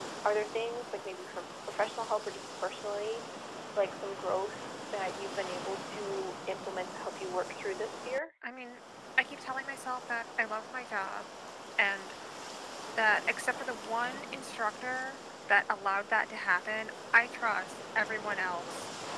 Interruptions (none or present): none